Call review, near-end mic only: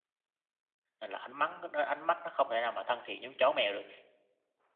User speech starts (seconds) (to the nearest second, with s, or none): 1 s